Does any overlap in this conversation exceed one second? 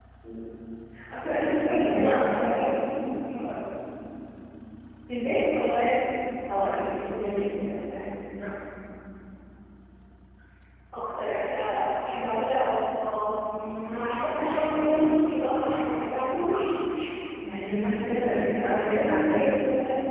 Yes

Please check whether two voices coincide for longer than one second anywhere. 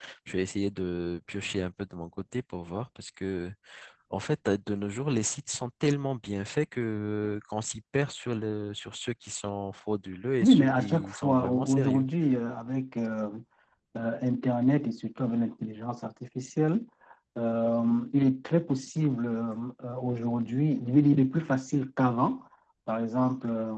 Yes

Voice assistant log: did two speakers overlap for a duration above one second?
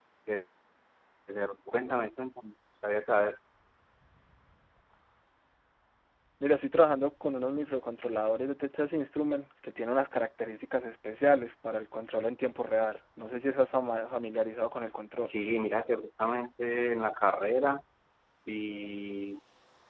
No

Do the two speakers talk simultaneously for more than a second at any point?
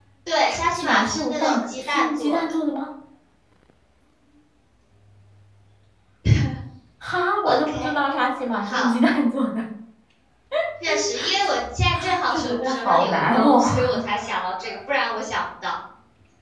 Yes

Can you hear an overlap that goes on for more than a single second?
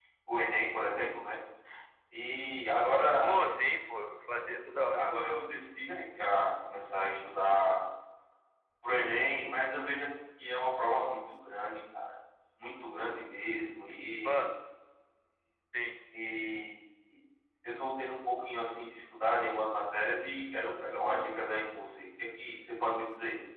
No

